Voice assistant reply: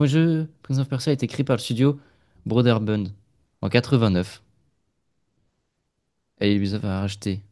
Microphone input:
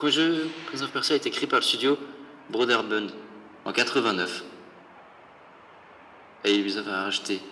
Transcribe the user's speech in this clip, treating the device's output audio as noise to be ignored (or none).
none